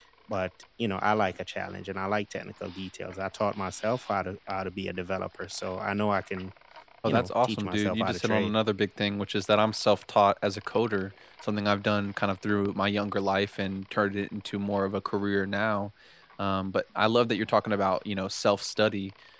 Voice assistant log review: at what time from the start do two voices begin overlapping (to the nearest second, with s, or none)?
7 s